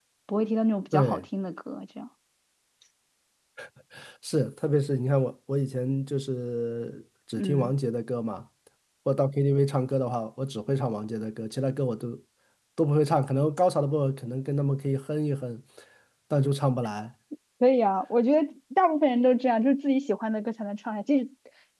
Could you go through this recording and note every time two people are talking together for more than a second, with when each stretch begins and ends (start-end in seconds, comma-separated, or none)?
none